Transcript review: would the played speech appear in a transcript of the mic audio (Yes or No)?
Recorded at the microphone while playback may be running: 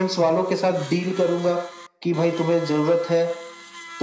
Yes